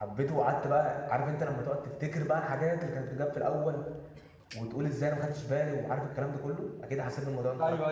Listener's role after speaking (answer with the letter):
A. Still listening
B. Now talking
B